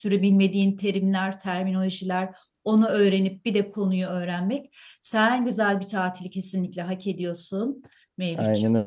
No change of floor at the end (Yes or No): No